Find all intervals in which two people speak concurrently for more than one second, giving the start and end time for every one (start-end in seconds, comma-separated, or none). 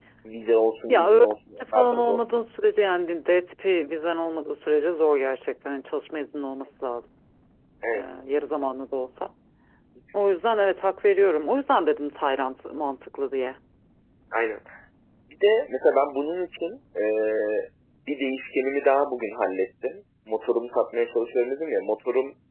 0.9-2.2